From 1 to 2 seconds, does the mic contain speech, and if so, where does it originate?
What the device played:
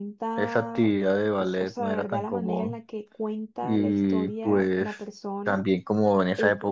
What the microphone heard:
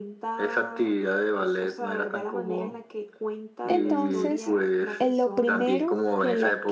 echo only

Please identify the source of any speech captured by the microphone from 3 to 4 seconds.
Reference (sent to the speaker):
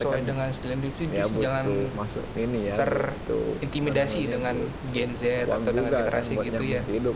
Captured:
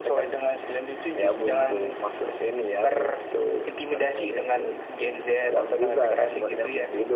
echo only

